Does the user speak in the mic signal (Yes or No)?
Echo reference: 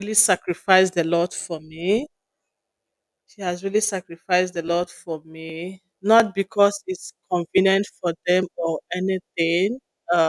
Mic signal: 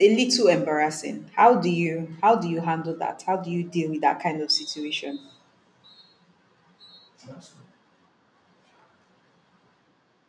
Yes